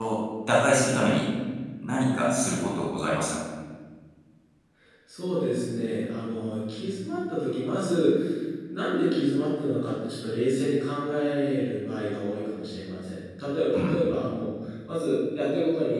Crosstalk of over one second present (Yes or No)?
No